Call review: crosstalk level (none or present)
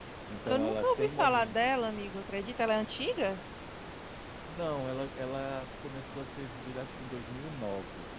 present